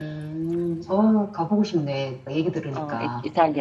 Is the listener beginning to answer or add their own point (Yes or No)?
Yes